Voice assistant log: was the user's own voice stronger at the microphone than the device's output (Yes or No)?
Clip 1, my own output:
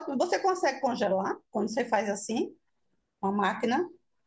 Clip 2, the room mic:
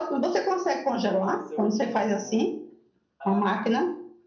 No